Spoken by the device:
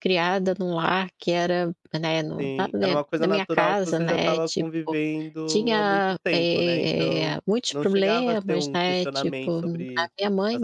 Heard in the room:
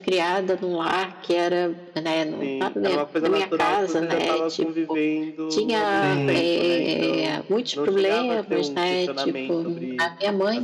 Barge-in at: 6.0 s

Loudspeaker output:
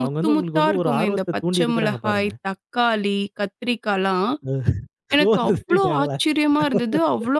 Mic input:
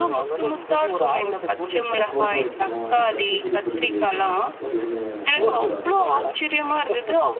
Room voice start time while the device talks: 2.1 s

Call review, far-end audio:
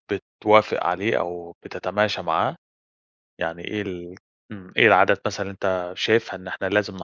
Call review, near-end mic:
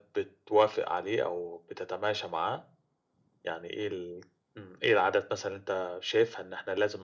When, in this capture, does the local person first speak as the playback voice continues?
none

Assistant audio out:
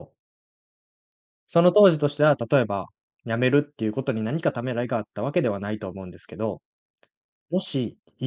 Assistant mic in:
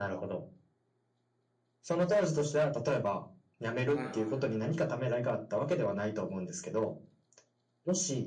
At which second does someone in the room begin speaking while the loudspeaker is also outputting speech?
3.8 s

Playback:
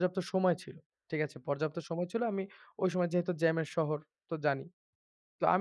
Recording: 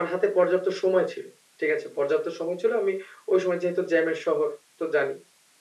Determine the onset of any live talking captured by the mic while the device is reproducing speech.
none

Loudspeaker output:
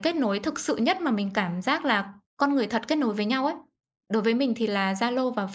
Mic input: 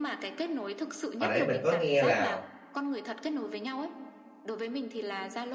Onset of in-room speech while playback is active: 1.2 s

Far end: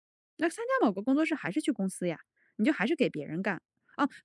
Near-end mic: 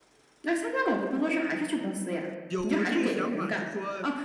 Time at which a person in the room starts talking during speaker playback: 2.5 s

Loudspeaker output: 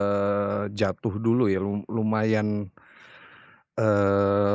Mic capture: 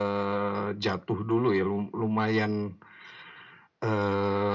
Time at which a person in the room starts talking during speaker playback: none

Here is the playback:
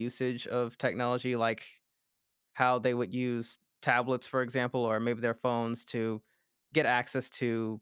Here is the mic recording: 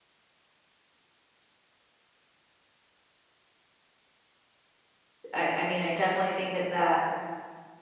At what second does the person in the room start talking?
5.3 s

